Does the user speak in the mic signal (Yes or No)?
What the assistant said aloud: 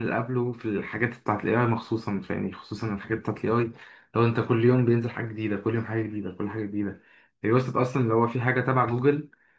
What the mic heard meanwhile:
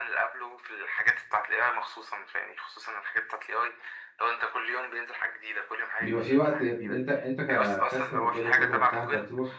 Yes